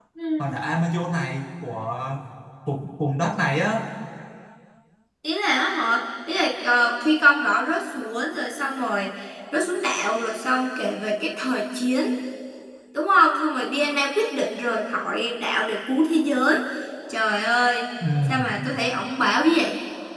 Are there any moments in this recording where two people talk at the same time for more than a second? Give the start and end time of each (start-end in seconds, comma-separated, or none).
none